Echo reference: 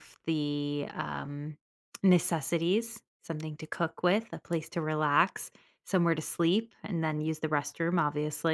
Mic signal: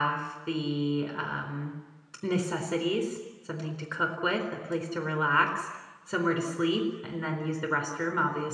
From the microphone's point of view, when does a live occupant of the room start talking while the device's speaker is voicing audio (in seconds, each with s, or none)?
none